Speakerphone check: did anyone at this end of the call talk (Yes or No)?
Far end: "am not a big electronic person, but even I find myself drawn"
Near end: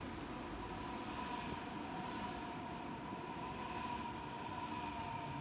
No